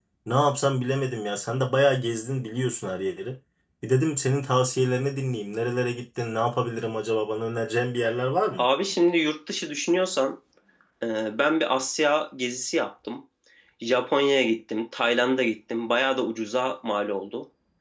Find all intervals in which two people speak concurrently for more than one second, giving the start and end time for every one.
none

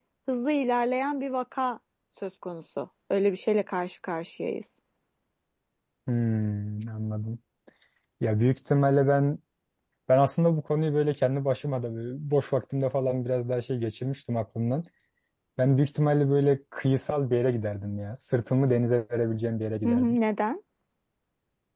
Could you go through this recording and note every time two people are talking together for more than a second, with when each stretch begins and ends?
none

